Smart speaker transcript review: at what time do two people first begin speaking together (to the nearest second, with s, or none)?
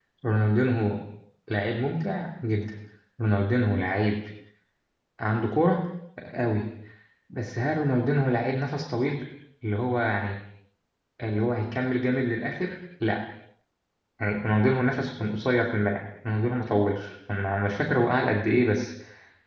none